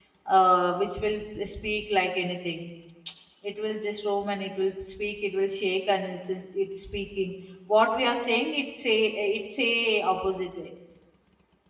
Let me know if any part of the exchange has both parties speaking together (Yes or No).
No